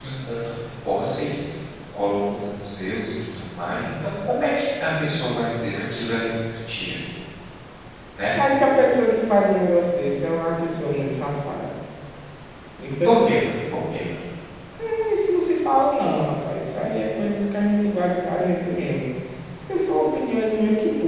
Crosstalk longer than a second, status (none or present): none